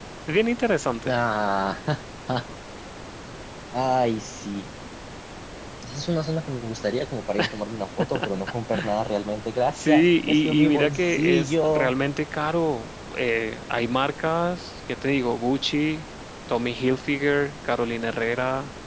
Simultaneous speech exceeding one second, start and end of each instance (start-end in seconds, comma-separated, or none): 9.8-11.9